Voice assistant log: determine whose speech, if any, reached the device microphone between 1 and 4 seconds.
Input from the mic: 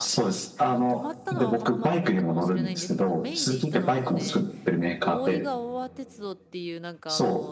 both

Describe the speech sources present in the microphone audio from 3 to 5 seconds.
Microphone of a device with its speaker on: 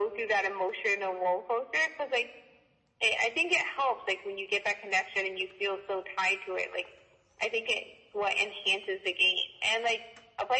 echo only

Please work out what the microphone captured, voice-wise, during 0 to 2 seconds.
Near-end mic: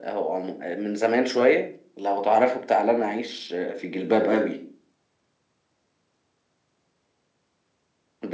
echo only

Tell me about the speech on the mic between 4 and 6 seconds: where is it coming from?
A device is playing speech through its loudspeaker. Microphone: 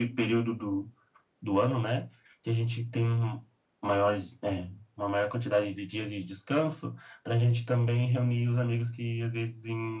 echo only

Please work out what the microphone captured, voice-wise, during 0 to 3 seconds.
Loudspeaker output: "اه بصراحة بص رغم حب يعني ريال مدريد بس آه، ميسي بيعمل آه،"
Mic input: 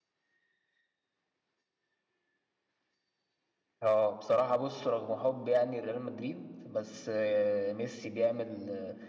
neither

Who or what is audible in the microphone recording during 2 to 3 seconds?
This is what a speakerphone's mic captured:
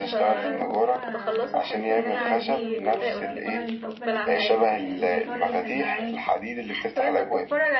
both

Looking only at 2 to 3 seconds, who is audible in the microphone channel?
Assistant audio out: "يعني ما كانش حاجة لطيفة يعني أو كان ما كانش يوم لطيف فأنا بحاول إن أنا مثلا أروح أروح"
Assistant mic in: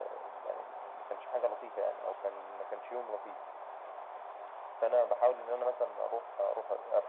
echo only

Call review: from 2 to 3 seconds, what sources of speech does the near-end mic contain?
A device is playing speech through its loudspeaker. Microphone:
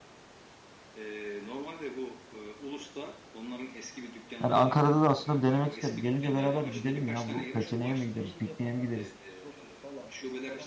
echo only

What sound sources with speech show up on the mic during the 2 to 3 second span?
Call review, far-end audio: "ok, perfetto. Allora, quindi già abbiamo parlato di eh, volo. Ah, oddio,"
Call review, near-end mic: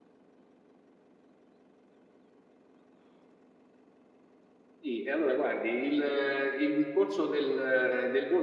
neither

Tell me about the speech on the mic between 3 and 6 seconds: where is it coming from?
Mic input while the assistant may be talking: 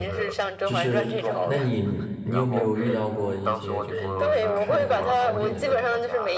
both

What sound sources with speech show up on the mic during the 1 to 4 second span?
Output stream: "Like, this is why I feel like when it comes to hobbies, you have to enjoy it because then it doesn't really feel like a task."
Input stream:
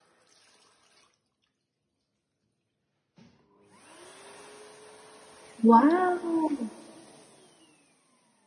neither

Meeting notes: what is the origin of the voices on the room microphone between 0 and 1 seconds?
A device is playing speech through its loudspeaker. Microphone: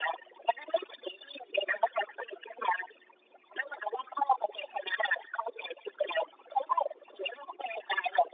echo only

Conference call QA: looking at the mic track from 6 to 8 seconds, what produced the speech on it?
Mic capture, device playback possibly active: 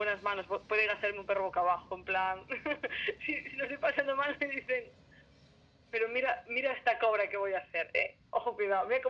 echo only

